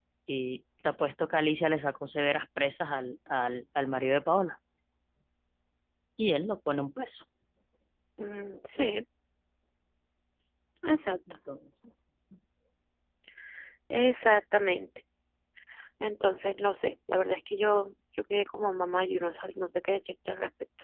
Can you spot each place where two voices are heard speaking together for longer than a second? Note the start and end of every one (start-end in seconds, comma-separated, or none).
none